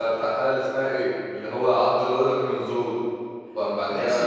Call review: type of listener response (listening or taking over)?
taking over